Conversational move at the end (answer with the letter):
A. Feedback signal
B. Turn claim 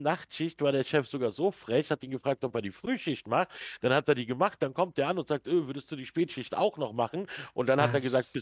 A